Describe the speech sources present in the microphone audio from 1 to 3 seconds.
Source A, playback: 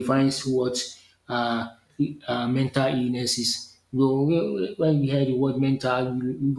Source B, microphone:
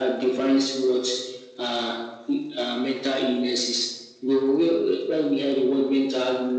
echo only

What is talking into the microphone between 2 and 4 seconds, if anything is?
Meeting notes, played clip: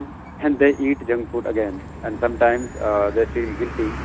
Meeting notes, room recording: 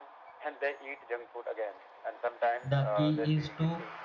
both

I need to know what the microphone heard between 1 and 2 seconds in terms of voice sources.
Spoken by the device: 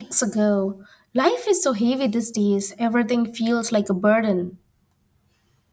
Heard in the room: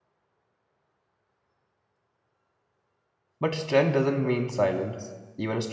neither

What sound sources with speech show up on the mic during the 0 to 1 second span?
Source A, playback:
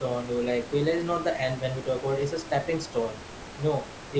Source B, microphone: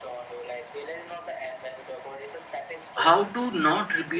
echo only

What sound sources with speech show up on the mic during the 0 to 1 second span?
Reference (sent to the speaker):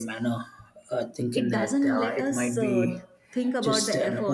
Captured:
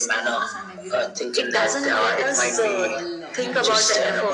both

